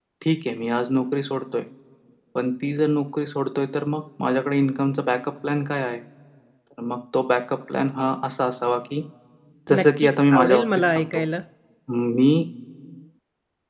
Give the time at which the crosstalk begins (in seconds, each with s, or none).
9.8 s